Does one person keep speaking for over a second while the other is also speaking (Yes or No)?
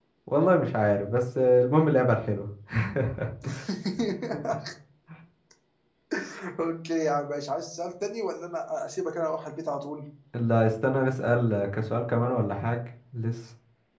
No